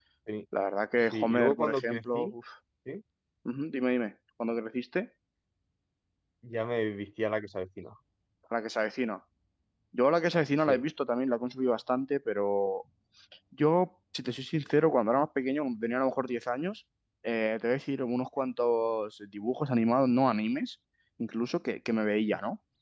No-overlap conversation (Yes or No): No